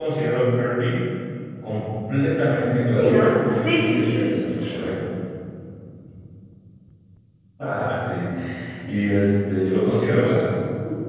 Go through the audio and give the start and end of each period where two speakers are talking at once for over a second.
2.9-4.3

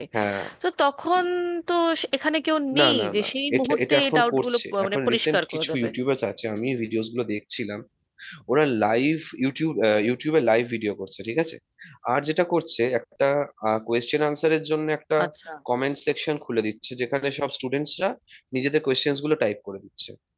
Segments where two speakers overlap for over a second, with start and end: 2.8-5.9

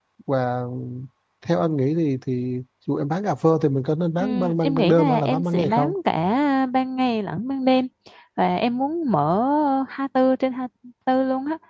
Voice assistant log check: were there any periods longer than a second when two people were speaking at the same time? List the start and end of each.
4.2-5.9

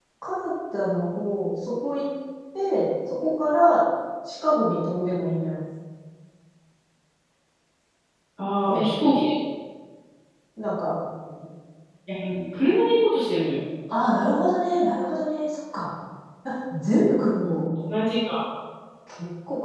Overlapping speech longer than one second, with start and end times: none

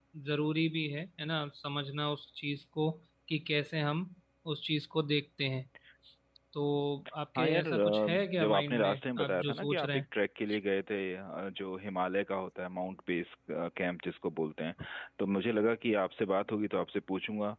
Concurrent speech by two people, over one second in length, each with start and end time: 7.4-10.0

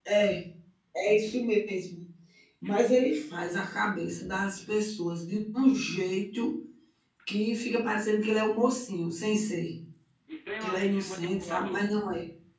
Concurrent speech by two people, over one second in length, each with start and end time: 10.6-11.9

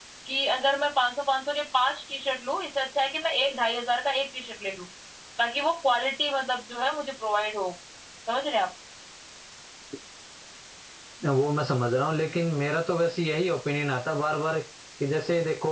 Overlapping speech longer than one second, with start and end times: none

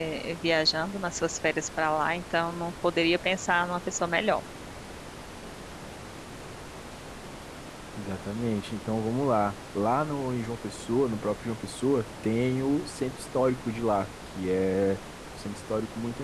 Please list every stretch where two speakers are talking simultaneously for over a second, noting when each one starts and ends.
none

